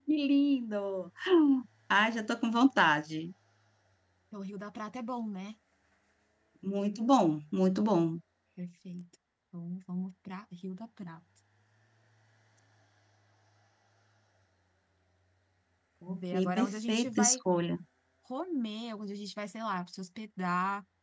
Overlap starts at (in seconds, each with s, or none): 16.1 s